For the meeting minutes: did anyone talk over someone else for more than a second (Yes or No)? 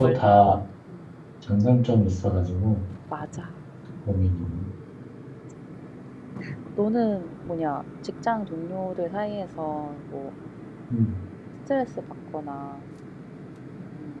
No